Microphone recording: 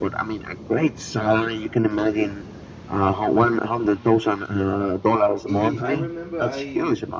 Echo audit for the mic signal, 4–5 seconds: echo only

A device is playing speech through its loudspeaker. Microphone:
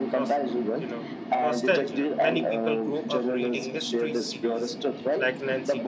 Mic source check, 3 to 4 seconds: both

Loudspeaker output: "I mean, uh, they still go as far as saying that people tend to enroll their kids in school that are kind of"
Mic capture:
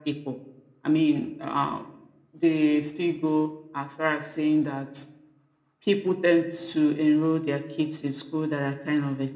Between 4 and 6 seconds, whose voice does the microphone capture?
echo only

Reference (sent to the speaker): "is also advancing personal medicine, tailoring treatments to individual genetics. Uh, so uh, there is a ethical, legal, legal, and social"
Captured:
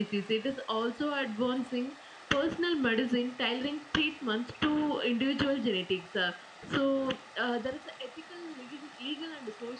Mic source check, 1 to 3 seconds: echo only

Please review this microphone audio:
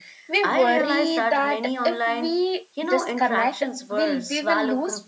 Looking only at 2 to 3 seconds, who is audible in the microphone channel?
both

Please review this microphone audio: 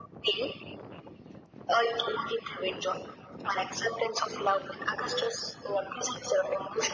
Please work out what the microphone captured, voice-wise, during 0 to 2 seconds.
echo only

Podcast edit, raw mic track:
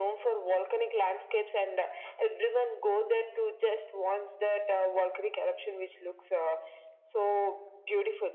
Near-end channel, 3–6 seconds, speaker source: echo only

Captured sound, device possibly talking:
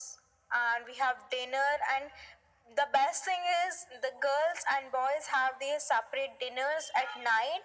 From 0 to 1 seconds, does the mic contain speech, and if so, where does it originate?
echo only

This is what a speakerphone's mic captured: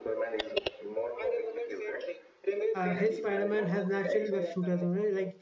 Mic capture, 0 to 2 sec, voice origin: echo only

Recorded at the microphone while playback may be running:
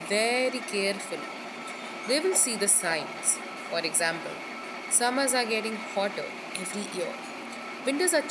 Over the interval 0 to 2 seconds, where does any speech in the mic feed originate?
user only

